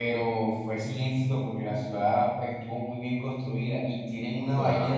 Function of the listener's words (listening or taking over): listening